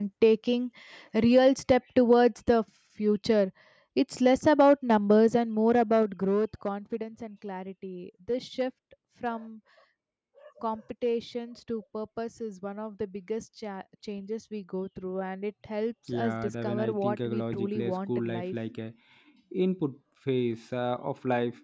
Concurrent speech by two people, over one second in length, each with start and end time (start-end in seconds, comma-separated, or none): 16.1-18.5